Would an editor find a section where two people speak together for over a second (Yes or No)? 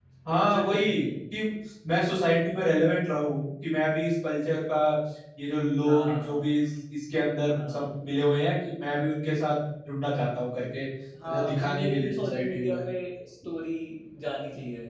Yes